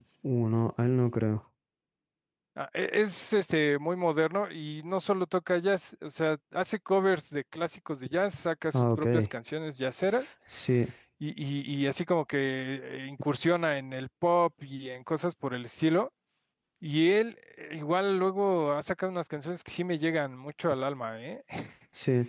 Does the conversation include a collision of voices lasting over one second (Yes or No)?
No